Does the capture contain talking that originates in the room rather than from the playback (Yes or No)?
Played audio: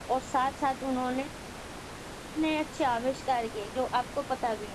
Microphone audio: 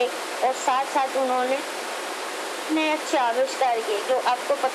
No